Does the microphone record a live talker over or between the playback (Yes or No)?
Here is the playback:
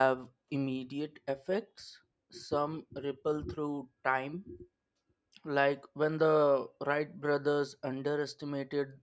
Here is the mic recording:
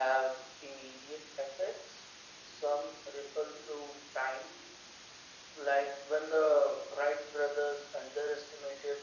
No